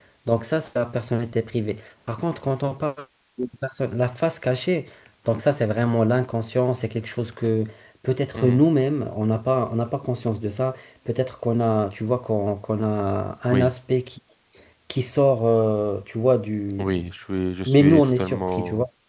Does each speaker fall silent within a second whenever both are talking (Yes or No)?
No